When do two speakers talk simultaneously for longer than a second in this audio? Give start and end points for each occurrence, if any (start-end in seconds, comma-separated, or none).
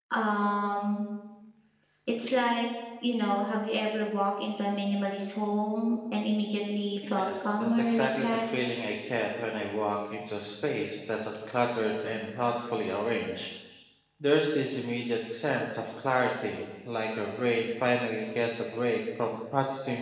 7.2-8.4